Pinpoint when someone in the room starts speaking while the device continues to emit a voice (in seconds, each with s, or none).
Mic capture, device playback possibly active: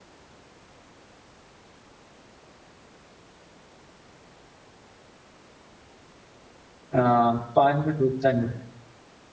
6.9 s